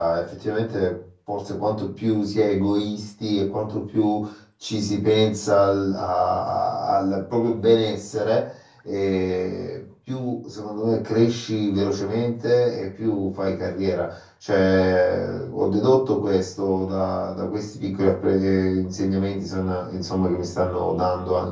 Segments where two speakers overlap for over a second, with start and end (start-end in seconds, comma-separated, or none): none